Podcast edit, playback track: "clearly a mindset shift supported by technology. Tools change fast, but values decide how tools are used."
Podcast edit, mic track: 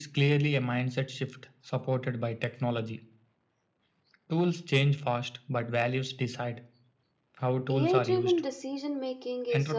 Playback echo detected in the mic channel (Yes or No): Yes